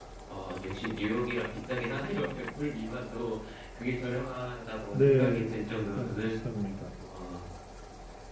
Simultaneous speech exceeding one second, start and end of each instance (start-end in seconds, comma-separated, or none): 4.9-6.2